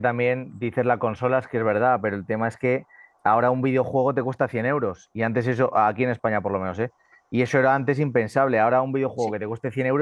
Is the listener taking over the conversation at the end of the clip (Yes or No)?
No